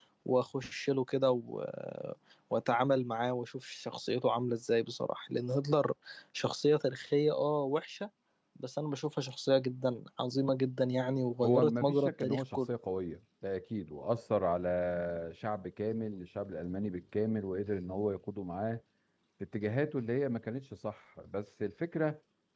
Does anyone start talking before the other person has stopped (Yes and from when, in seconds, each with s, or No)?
Yes, from 11.4 s